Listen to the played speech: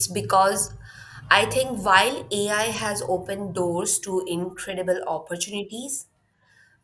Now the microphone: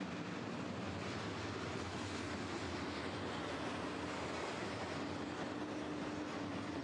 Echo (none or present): none